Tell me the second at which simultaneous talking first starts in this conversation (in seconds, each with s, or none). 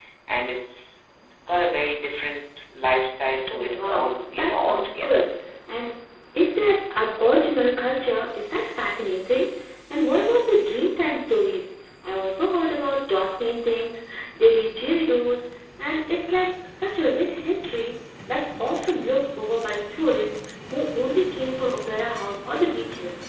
3.5 s